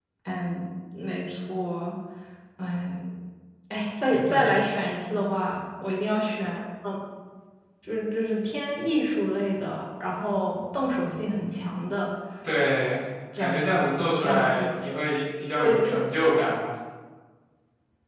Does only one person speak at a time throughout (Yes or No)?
No